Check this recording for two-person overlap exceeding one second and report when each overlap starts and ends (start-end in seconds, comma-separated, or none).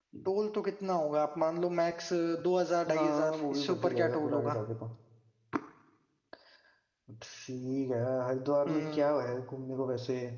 2.9-4.6